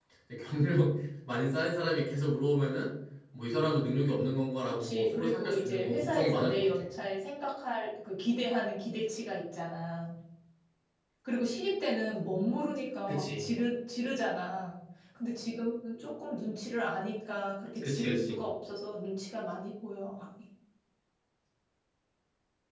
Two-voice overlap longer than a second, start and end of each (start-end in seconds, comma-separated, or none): 4.7-6.7